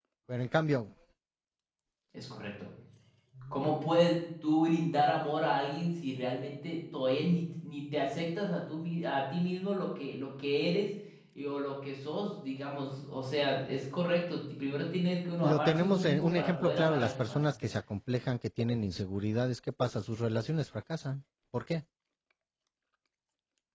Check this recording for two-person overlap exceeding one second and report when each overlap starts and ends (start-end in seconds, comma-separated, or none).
15.4-17.4